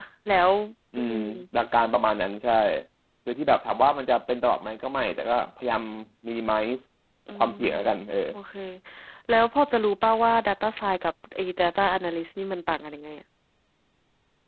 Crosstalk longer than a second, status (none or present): none